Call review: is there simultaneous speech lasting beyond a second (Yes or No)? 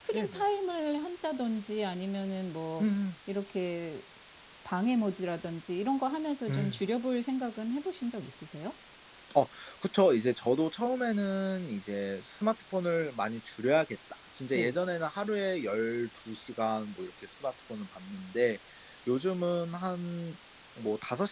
No